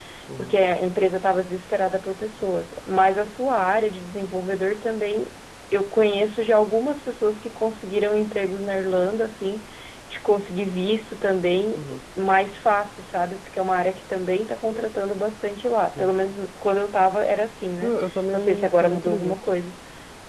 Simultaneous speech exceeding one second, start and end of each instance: 17.8-19.4

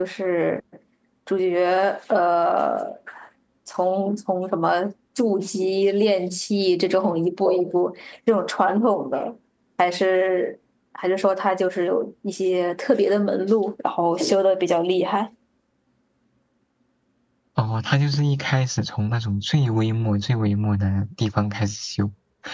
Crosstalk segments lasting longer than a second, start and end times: none

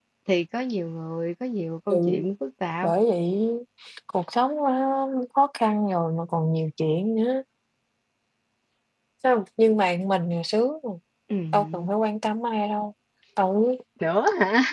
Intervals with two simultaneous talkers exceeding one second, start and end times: none

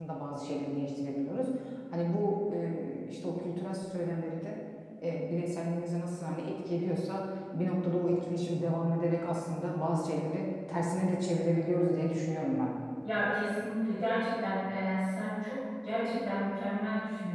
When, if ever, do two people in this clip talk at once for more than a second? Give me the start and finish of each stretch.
none

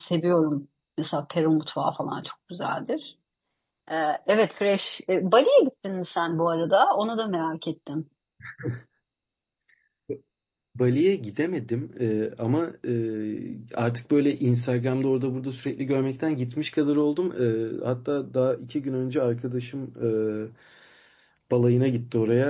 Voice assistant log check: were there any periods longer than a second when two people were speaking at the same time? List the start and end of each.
none

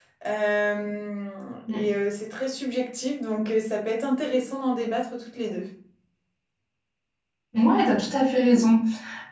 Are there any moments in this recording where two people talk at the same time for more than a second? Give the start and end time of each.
none

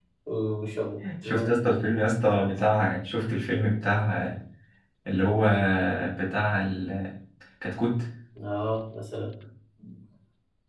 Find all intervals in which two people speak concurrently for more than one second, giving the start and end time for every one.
none

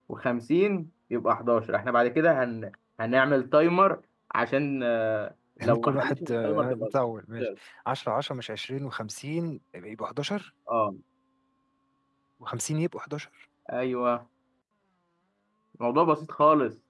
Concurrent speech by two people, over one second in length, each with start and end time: 5.6-6.9

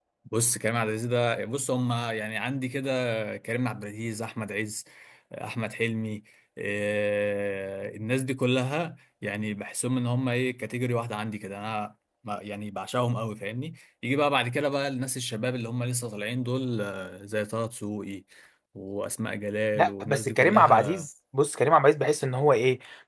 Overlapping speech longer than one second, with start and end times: 19.8-21.0

